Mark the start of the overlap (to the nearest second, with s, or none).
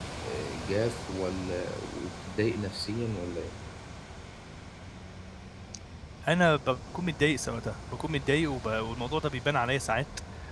none